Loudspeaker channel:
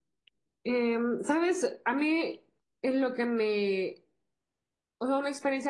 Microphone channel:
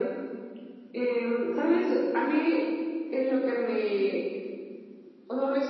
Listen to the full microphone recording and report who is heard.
echo only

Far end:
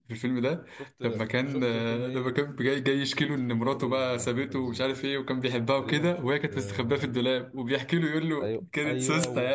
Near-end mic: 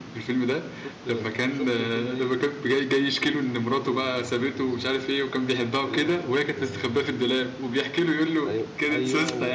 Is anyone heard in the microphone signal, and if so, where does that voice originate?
echo only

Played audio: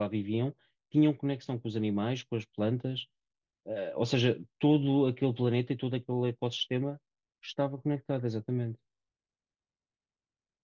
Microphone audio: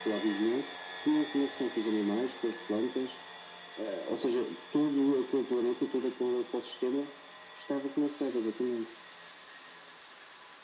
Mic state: echo only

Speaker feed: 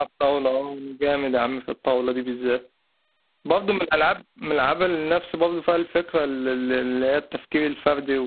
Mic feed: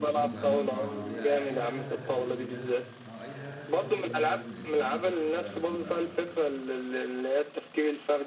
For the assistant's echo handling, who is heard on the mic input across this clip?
both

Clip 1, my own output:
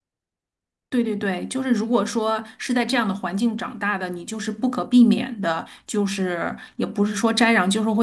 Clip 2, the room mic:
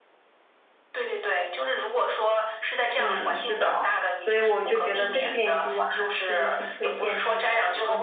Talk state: both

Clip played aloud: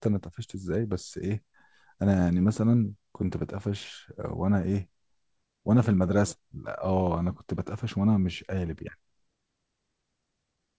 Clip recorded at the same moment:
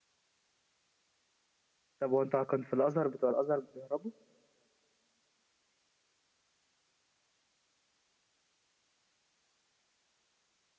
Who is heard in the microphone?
user only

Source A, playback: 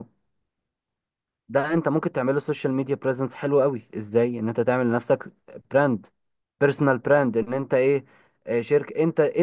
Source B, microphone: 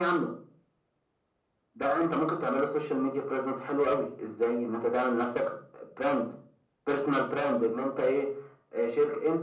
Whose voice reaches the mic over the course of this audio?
echo only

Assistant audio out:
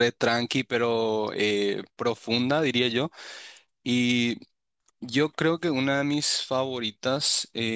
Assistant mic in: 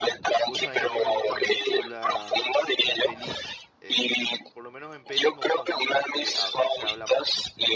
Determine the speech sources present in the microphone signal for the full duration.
both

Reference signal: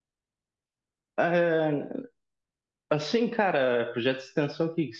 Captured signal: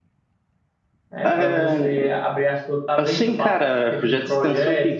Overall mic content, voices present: both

